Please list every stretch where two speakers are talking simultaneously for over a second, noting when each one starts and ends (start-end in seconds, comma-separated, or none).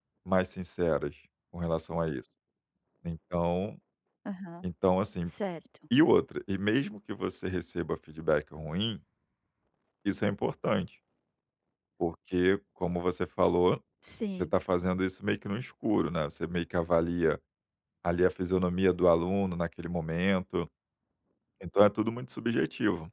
none